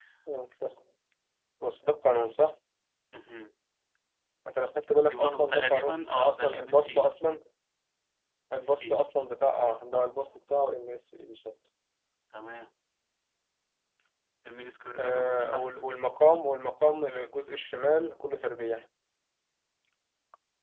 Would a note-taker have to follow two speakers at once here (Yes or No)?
Yes